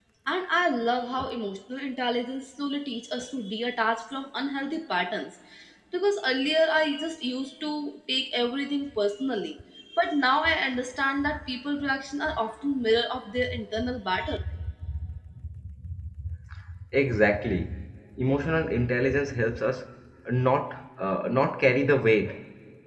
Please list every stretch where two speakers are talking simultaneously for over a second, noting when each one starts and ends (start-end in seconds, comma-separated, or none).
none